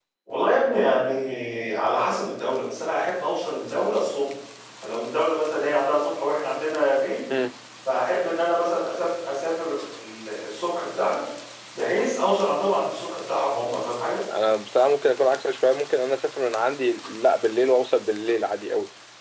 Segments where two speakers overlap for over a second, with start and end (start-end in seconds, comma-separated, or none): none